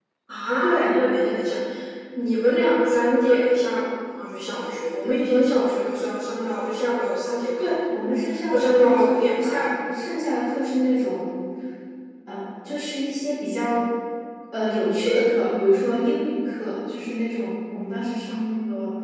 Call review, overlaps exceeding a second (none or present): present